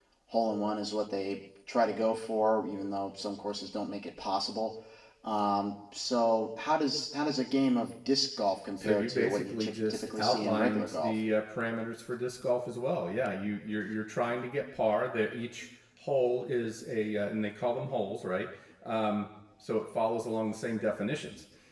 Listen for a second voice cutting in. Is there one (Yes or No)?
Yes